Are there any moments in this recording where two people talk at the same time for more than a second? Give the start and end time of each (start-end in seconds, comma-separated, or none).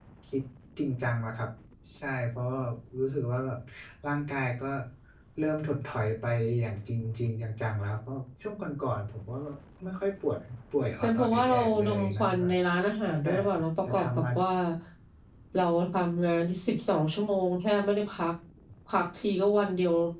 11.0-12.5